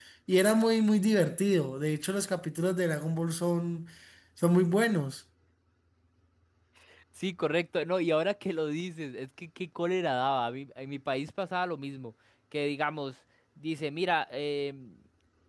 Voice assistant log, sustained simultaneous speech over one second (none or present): none